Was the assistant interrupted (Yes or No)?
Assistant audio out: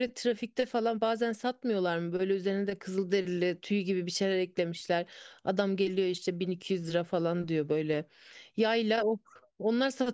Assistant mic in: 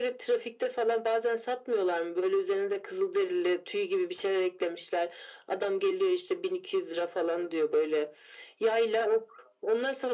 No